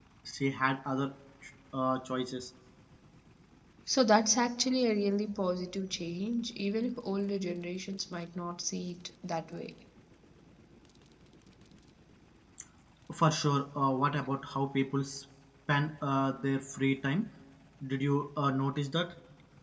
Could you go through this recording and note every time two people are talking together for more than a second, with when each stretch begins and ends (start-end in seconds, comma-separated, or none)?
none